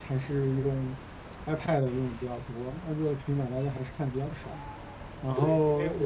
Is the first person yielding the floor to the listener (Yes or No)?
Yes